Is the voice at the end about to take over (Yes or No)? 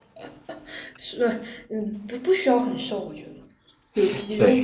Yes